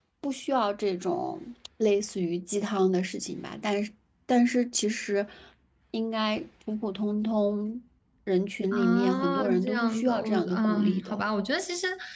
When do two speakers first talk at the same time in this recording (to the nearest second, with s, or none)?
9 s